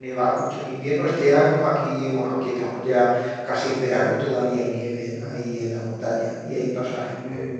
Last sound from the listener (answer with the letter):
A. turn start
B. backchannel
B